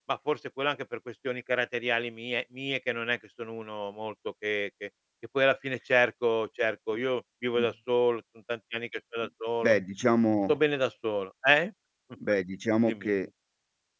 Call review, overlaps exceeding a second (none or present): none